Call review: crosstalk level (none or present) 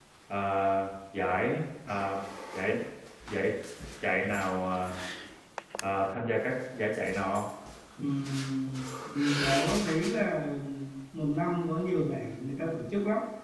none